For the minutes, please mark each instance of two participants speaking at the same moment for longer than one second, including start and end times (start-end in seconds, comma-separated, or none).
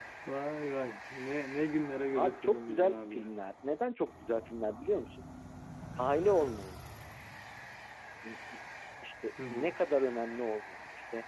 2.2-3.4